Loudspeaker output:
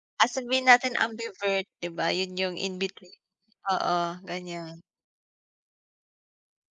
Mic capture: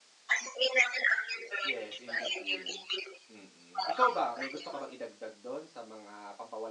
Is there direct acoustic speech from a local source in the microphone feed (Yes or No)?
Yes